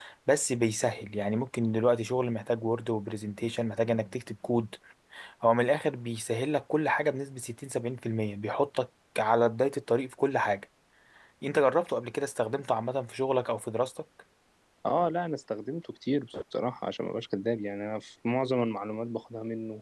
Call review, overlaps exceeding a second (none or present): none